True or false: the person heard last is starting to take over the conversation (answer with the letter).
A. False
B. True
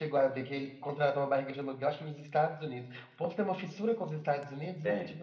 B